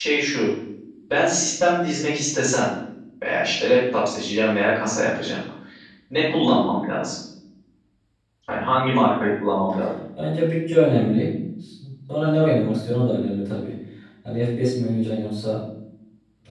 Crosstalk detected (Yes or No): No